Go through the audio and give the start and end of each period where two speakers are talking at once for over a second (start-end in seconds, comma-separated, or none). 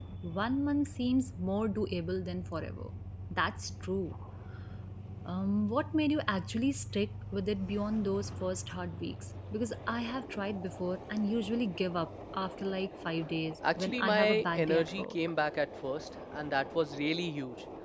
13.8-15.2